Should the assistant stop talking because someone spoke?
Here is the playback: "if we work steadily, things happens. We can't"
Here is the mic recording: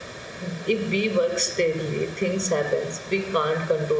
No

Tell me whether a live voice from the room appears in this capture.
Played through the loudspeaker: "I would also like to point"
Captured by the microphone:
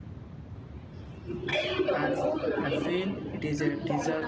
Yes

